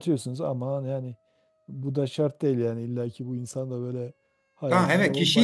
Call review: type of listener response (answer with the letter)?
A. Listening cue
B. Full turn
B